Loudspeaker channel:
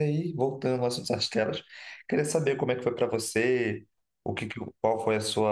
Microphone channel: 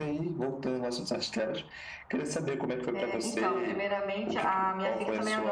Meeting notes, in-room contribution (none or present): present